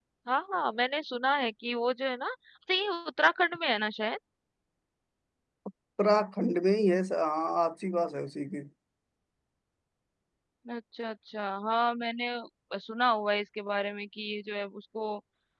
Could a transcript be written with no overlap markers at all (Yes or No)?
Yes